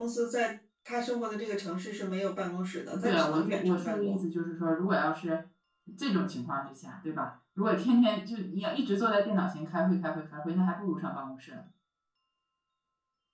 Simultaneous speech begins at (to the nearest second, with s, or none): 3 s